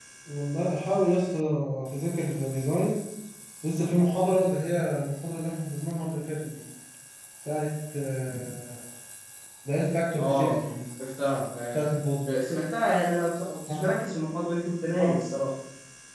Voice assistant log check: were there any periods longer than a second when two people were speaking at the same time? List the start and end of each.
none

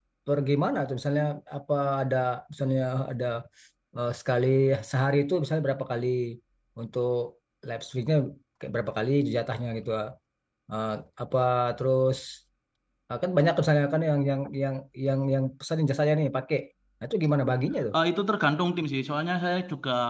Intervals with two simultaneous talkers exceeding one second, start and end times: none

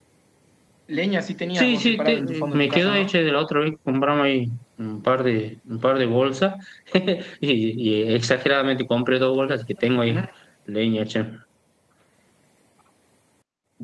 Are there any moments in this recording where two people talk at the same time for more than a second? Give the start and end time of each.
1.6-3.1

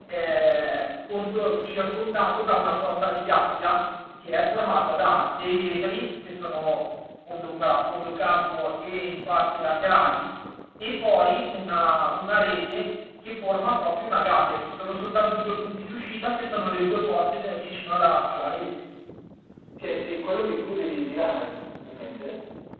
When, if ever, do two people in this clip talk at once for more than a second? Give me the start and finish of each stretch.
none

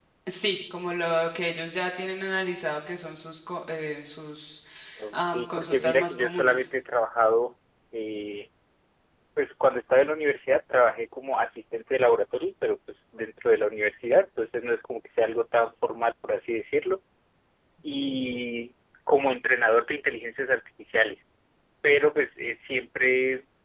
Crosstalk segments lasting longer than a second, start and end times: 5.1-6.7

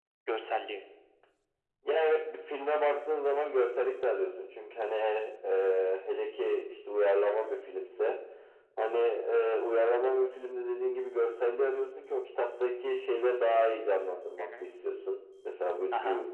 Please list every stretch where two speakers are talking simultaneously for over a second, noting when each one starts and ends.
none

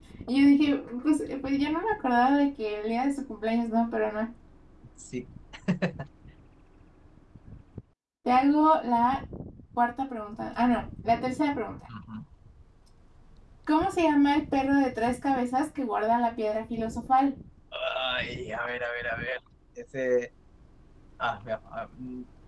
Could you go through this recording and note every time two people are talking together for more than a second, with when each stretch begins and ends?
none

